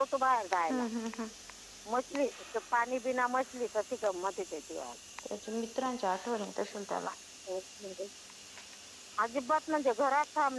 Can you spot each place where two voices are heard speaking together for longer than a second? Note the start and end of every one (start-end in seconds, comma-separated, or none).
none